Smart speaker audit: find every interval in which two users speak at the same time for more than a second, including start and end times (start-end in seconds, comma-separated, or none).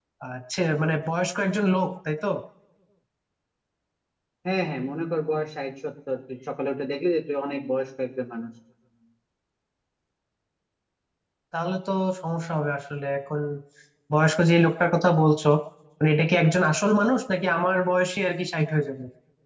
none